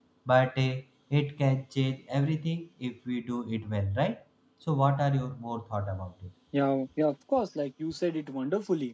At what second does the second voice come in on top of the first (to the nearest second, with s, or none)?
none